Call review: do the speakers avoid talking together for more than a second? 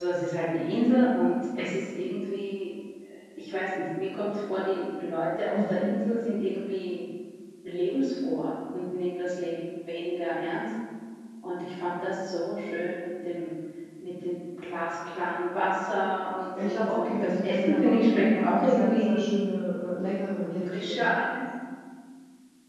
No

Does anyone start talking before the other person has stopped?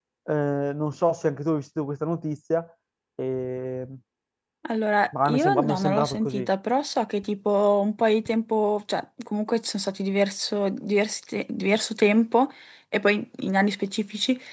Yes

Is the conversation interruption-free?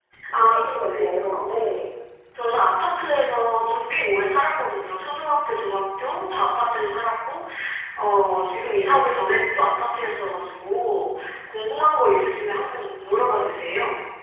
No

